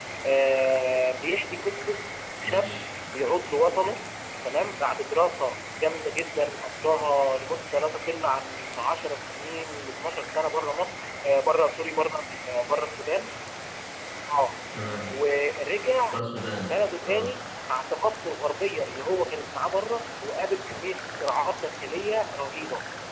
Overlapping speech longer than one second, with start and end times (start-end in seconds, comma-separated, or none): none